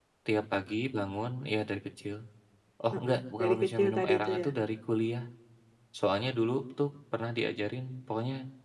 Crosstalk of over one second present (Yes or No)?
Yes